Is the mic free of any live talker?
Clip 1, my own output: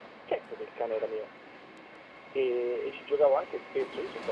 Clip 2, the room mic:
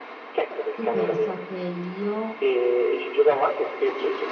No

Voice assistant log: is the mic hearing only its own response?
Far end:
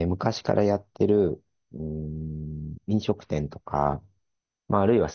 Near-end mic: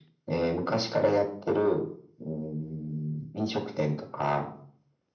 Yes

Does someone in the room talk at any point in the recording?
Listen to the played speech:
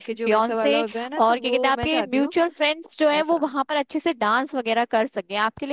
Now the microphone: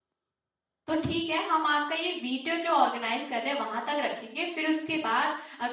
Yes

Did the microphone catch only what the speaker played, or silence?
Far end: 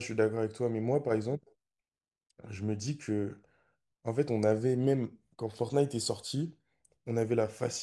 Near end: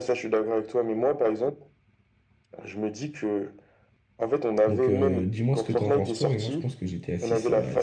No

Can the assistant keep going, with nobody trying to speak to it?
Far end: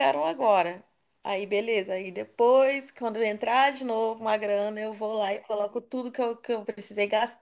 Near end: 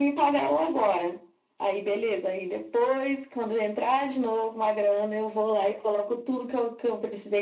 Yes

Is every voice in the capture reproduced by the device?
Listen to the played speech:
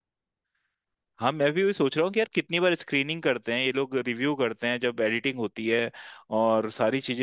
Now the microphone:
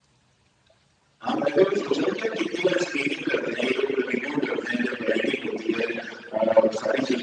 Yes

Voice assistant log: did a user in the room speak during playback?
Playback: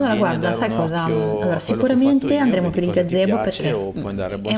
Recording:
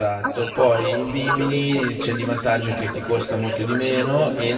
Yes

